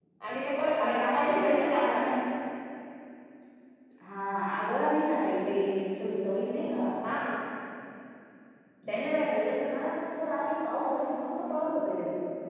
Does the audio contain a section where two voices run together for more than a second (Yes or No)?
Yes